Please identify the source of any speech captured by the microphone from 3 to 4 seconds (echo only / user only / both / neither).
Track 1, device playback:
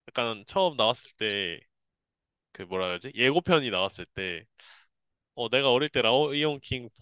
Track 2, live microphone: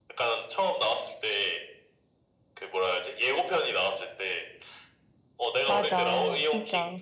echo only